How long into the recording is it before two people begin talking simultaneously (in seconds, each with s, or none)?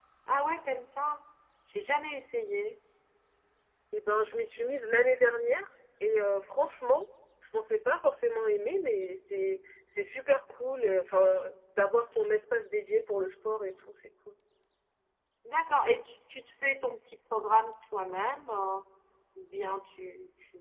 none